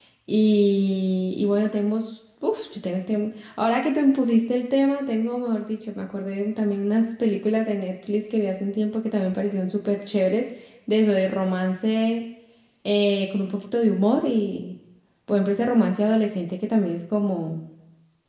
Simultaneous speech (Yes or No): No